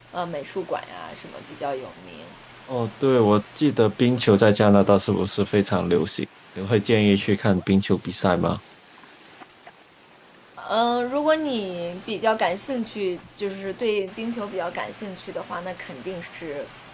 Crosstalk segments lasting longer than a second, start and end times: none

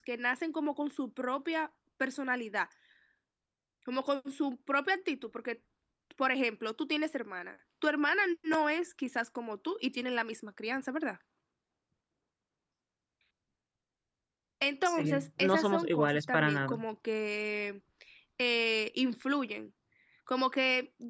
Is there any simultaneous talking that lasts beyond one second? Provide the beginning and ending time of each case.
14.8-16.8

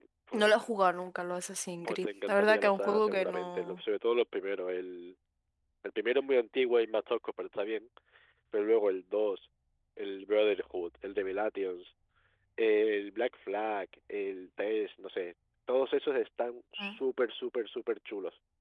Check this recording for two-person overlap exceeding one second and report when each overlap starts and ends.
1.8-3.8

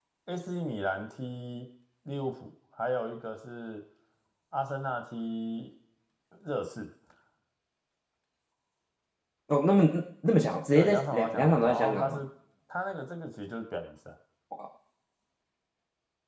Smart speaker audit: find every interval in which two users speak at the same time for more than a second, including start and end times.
10.7-12.2

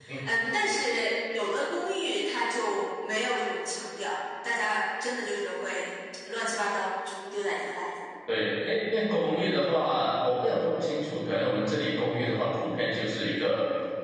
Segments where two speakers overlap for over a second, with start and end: none

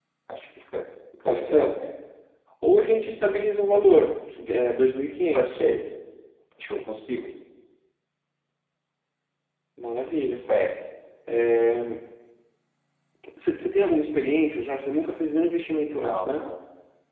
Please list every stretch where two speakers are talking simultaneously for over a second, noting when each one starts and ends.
none

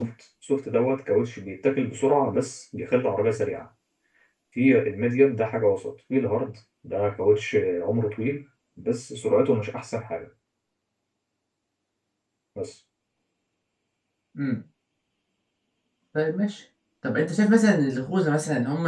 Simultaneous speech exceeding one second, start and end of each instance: none

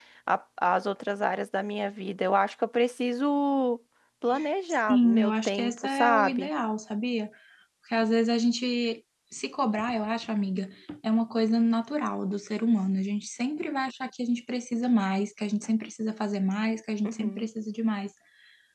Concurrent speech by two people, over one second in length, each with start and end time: 4.9-6.5

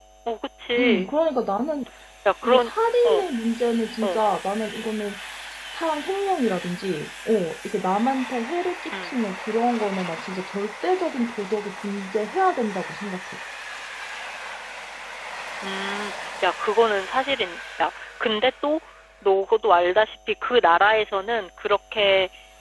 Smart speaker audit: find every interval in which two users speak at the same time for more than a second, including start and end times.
none

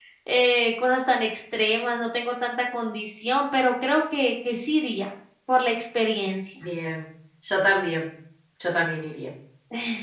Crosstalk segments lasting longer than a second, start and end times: none

